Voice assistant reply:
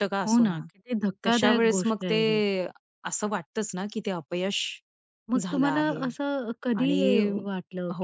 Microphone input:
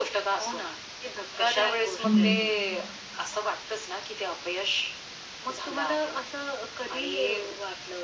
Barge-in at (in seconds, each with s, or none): 2.0 s